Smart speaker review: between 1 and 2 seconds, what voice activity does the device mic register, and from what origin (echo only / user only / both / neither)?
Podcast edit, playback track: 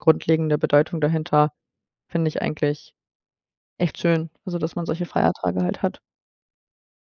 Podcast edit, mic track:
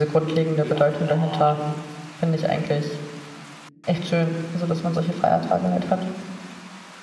both